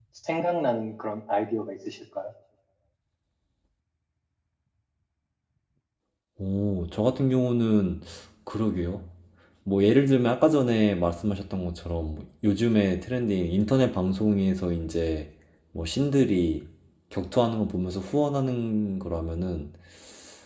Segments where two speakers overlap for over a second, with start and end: none

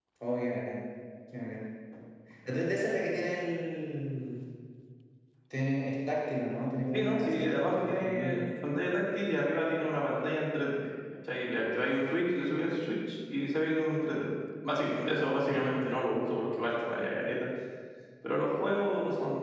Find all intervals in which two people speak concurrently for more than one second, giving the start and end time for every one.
6.9-8.4

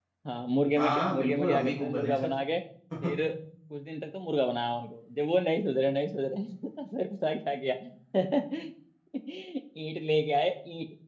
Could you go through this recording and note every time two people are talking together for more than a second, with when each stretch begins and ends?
0.8-2.1

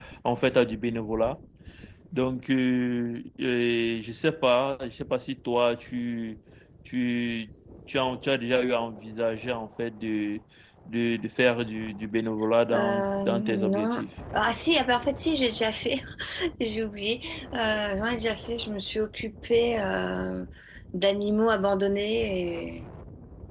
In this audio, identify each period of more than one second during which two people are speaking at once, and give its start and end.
12.7-14.0

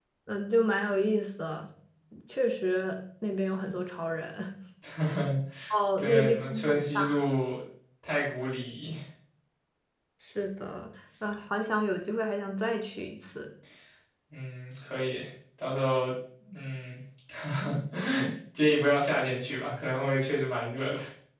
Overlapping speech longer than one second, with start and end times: 6.0-7.2

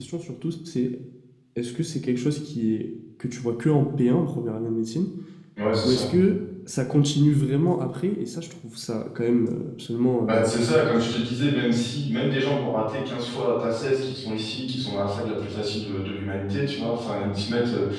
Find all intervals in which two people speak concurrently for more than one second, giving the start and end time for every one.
none

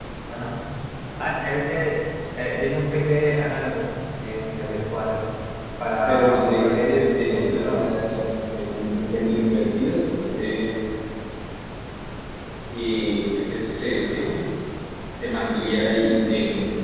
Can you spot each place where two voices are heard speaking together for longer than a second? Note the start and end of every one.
6.0-7.9

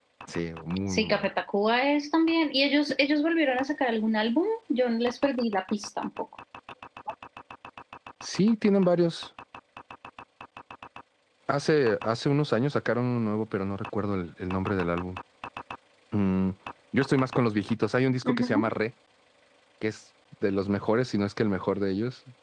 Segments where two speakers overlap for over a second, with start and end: none

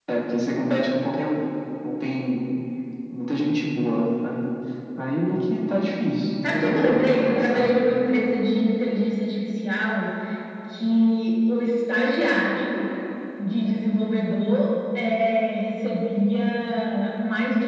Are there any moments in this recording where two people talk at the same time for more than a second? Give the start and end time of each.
6.5-7.7

